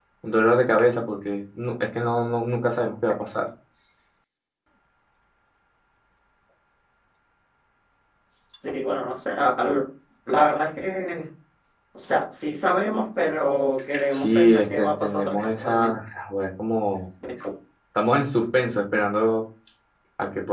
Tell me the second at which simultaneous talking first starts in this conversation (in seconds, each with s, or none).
14.1 s